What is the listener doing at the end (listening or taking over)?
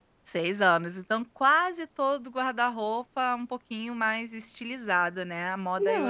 taking over